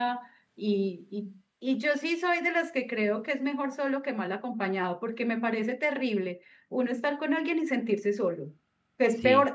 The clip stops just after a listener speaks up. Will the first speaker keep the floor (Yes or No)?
Yes